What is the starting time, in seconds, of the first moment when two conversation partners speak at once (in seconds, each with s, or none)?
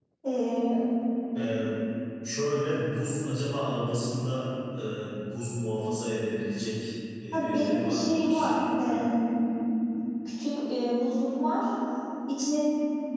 7.3 s